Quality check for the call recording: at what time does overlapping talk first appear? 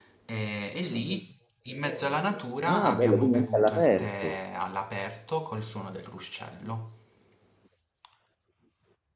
2.6 s

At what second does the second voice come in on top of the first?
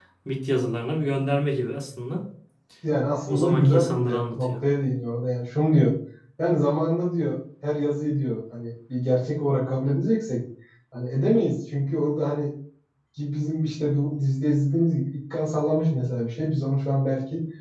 3.3 s

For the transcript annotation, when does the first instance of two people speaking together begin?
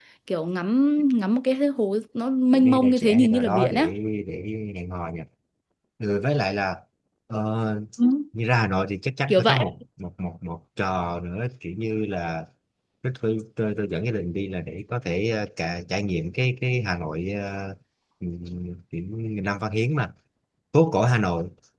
2.5 s

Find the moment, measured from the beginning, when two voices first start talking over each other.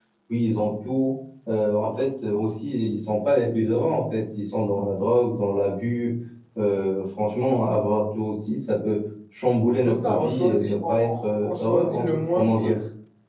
9.8 s

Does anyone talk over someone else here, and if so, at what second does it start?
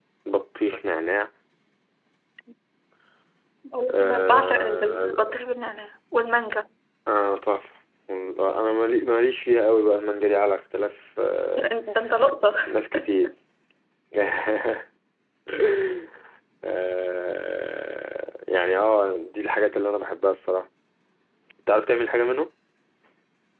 3.8 s

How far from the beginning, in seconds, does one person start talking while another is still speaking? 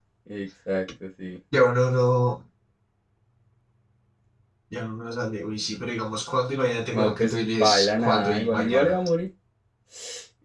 6.9 s

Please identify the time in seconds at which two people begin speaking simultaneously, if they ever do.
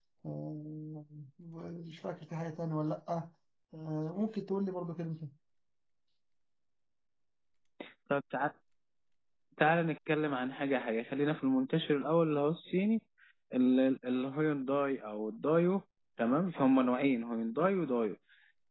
none

